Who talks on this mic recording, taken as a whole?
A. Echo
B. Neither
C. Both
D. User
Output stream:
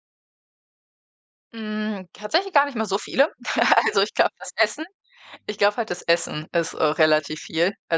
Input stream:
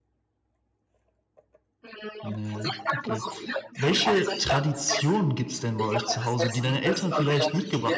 C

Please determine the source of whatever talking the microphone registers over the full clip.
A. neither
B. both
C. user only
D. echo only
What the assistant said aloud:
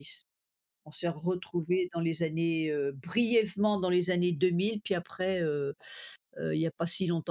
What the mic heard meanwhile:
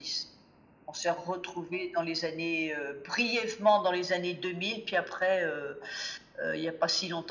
D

